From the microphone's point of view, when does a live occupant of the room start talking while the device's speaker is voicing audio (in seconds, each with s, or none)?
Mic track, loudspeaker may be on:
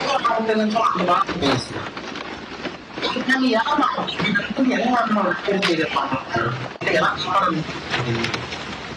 none